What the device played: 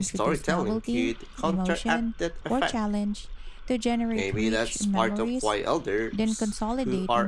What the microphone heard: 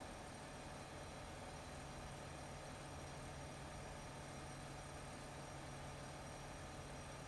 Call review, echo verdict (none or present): none